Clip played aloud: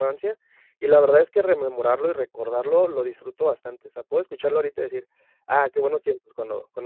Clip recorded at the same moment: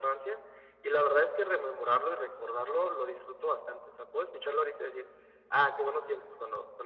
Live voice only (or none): none